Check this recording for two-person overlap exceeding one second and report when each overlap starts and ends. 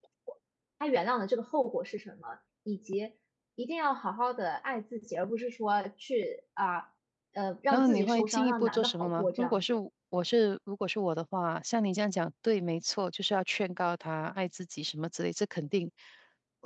7.7-9.7

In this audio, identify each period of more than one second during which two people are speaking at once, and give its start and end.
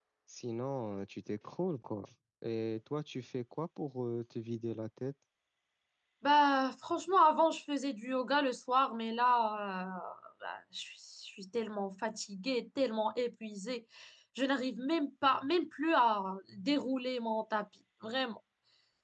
none

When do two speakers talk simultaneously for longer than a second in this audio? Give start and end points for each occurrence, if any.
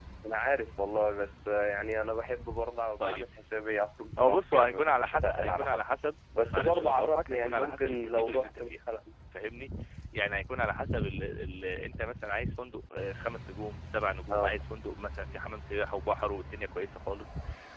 4.2-5.8, 6.5-8.7

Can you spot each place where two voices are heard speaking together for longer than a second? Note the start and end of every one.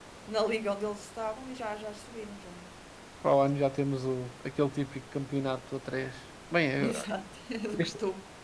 none

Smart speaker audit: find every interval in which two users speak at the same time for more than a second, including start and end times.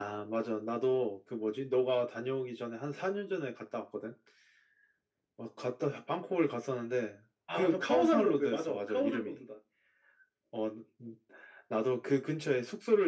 7.5-9.3

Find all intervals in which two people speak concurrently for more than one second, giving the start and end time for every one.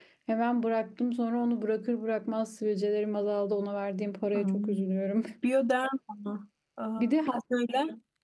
none

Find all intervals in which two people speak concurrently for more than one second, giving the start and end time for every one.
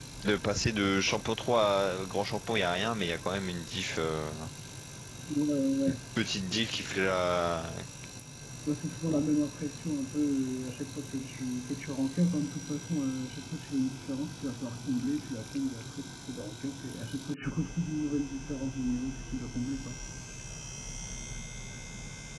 none

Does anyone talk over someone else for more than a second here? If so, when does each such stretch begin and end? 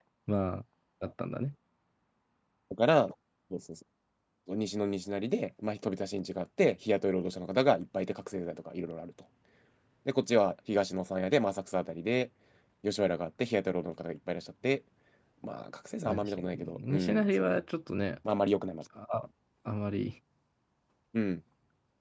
16.1-17.6

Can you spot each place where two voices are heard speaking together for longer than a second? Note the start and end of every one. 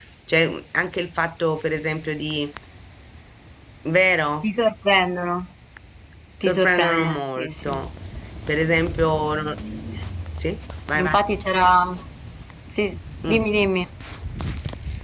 6.4-7.7

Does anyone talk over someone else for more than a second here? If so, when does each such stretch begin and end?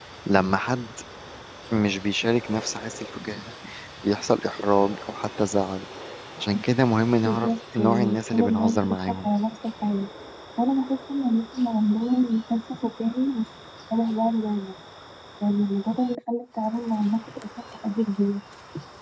7.2-9.3

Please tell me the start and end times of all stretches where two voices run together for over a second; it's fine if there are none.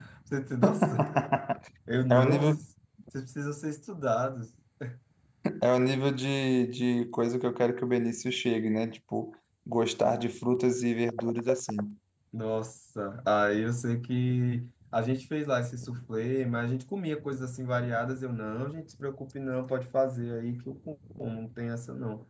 none

